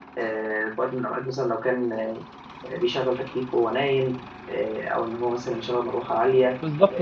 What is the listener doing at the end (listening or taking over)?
taking over